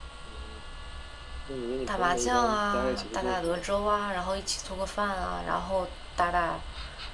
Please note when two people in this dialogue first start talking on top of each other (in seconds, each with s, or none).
1.9 s